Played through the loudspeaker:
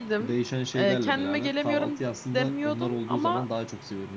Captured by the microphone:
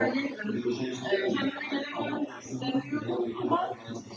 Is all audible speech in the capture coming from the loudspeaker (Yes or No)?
Yes